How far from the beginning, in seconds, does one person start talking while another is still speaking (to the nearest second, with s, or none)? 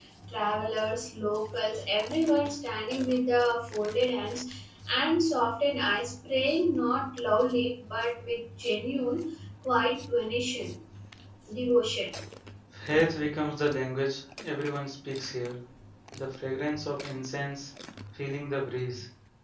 none